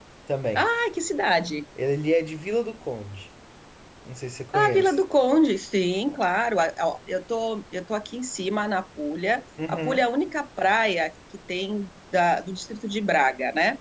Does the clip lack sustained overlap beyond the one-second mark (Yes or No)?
Yes